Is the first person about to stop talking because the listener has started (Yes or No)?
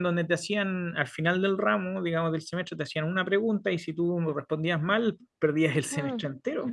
Yes